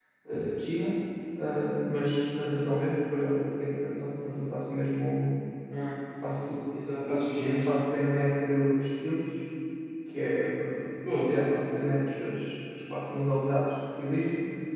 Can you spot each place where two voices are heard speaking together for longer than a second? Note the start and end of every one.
none

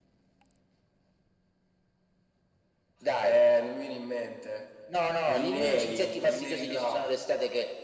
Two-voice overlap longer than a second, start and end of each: 5.3-7.1

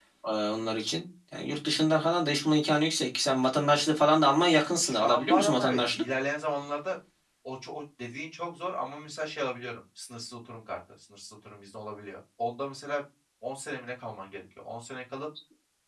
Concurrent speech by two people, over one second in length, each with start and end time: 4.8-6.0

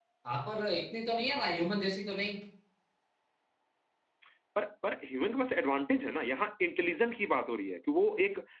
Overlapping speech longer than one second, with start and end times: none

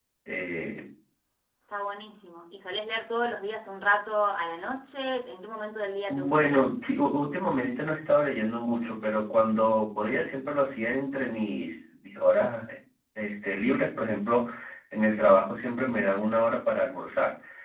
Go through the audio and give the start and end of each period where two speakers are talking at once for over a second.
none

